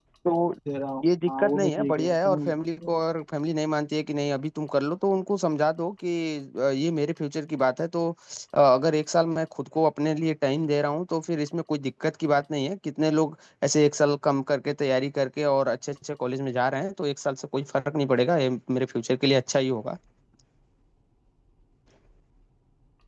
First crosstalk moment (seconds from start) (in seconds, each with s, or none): 1.0 s